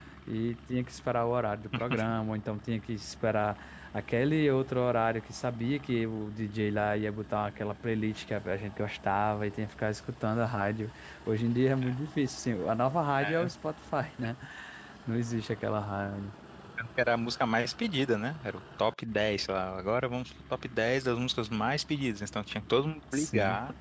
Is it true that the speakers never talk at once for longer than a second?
Yes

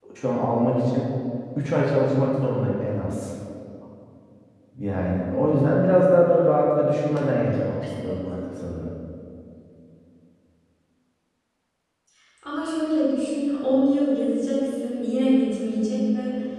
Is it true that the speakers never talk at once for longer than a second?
Yes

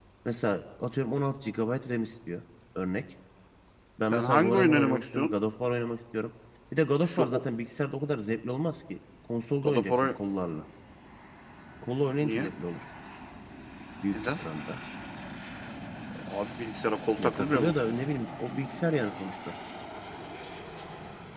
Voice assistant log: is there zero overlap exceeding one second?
No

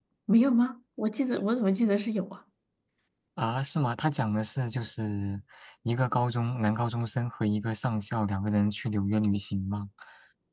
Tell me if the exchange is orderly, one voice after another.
Yes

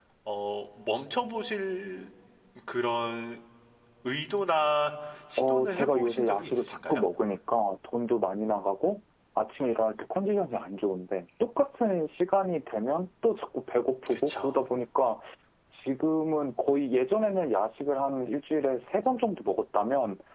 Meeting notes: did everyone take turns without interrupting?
No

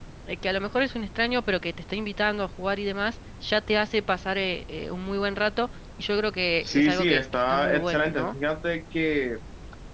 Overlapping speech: Yes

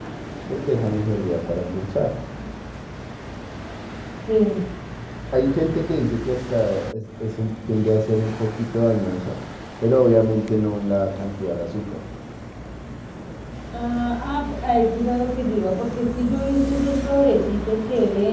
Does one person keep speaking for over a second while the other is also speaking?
No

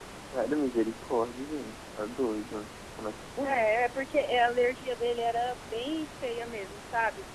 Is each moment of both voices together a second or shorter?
Yes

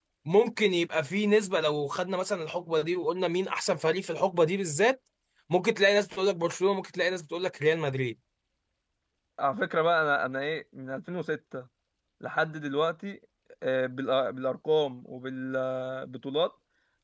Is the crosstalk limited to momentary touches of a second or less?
Yes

